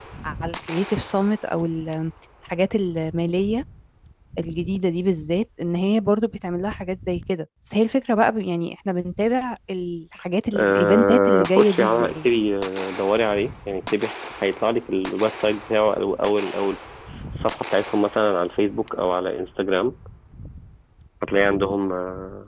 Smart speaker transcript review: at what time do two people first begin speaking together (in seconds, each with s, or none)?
10.5 s